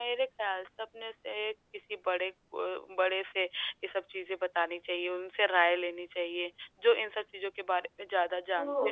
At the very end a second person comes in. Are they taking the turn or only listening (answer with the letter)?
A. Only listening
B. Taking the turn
B